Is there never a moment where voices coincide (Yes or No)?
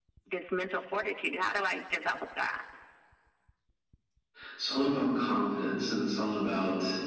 Yes